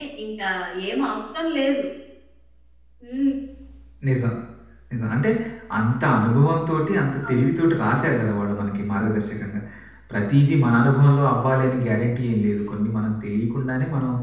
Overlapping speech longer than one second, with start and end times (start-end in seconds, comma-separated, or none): none